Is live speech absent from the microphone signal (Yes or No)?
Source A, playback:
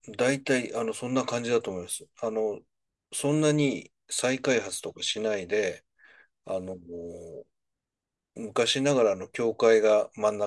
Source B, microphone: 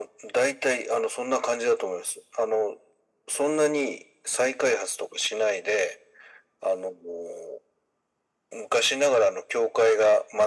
Yes